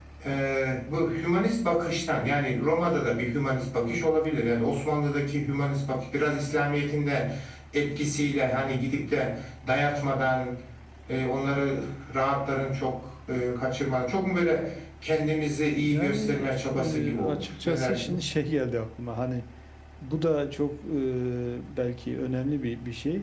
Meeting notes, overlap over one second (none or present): present